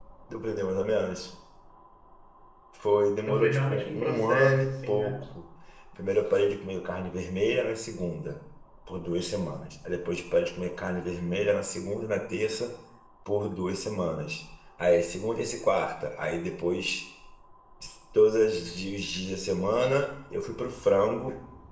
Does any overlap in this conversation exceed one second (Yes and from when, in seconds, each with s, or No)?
Yes, from 3.2 s